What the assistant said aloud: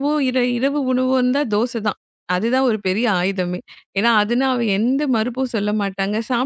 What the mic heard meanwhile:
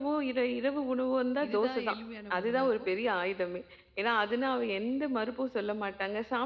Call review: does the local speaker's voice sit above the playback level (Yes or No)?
No